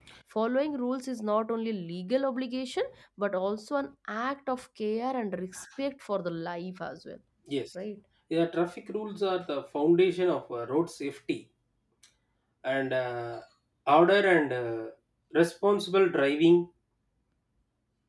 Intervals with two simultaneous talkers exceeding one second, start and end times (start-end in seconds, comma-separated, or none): none